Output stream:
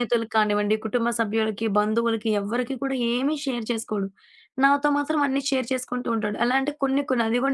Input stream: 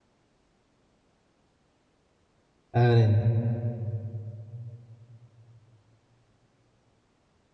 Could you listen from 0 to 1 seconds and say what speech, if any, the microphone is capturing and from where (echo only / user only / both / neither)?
neither